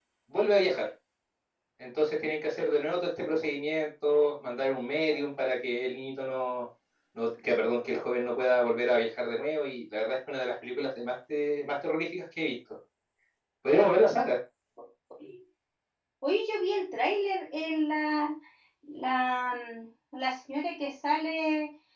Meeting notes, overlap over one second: none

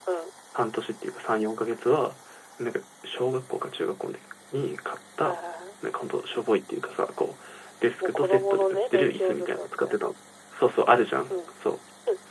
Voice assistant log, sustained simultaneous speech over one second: present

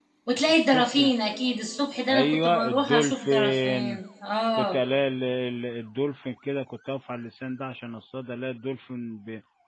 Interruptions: present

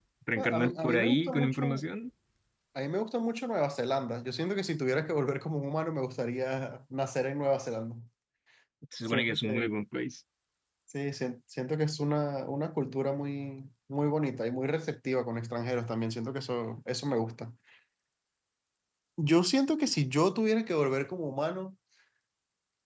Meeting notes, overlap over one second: present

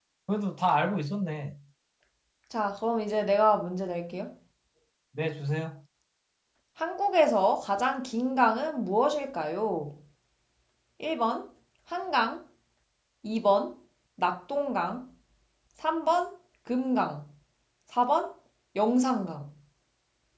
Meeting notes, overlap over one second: none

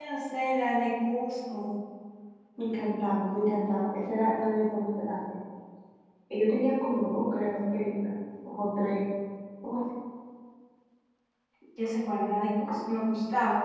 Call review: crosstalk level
none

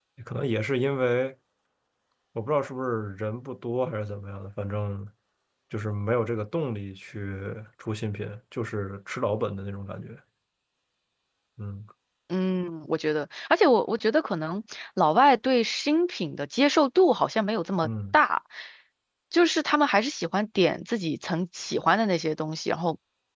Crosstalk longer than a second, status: none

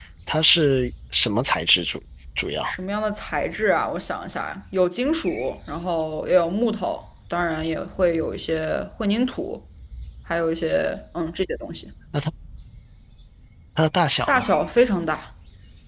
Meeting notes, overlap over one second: none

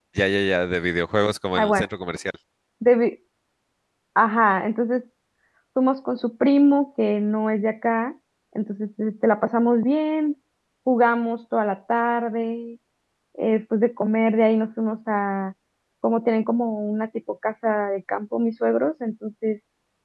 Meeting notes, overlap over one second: none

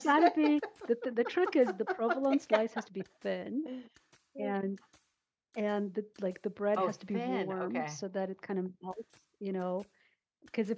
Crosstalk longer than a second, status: present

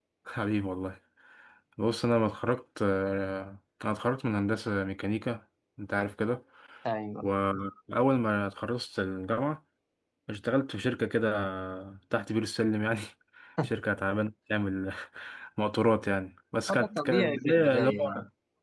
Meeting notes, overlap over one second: present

